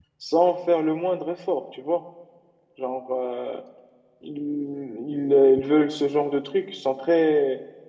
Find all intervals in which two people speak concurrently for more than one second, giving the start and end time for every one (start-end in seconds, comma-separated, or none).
none